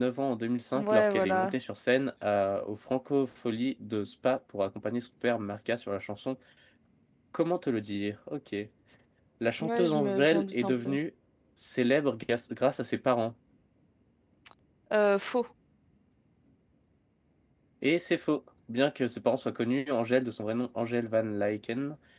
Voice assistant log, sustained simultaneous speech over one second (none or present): present